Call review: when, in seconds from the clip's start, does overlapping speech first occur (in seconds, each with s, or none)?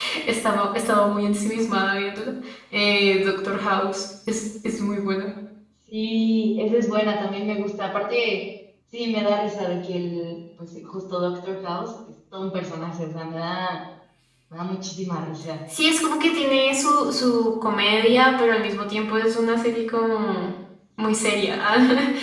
none